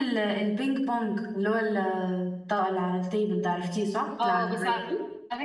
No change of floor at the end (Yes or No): No